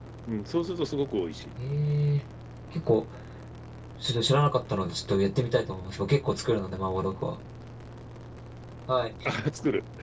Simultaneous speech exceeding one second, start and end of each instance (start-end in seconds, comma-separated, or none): none